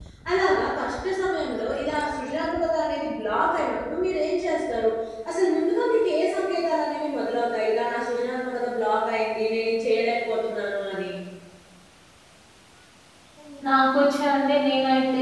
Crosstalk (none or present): none